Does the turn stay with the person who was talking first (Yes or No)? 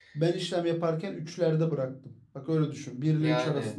Yes